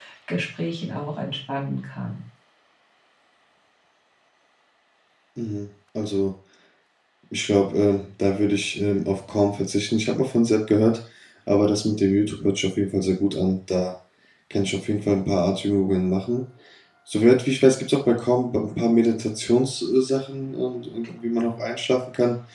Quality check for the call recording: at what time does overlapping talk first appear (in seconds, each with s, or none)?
none